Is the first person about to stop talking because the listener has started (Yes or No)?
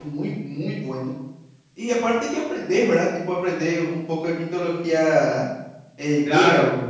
Yes